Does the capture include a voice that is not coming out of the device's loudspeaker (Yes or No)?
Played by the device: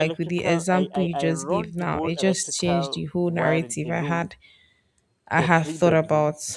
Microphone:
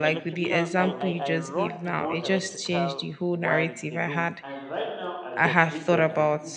Yes